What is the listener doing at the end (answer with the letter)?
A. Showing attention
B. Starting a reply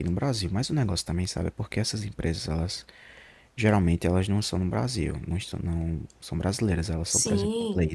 A